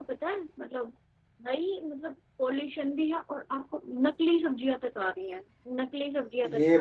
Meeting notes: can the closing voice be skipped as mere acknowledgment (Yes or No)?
No